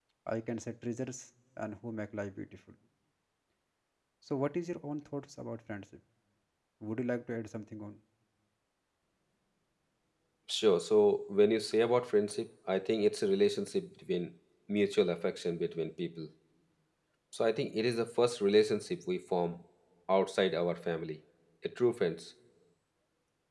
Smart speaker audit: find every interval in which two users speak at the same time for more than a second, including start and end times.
none

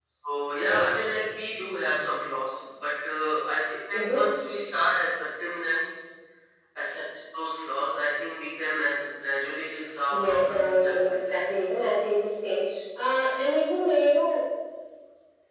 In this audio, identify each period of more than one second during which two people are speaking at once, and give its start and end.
10.1-11.4

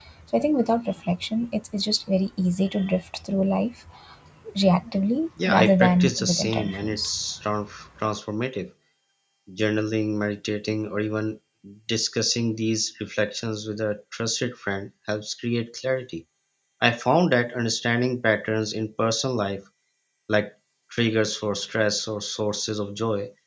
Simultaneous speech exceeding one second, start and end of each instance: 5.5-7.2

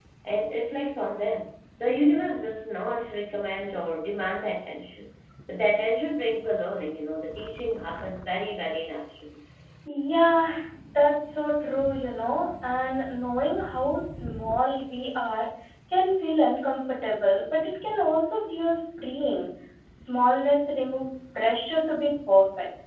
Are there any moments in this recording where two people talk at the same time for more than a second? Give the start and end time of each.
none

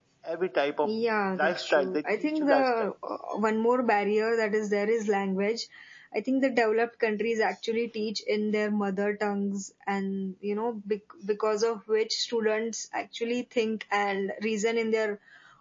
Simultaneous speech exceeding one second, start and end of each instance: 1.4-2.9

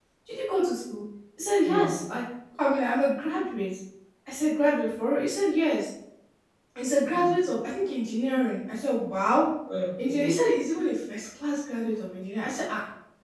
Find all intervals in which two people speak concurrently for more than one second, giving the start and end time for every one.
none

